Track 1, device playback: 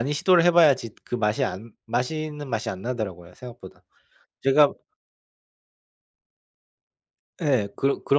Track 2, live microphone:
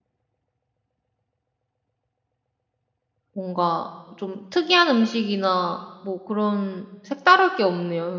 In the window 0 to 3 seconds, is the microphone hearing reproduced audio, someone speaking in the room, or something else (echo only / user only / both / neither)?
neither